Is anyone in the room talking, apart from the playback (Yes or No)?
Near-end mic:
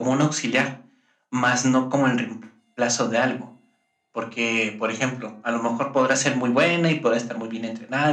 No